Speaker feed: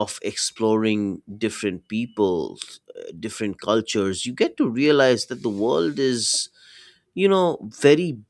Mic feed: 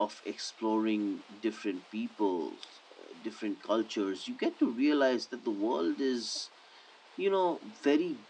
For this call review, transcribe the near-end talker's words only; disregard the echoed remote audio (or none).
none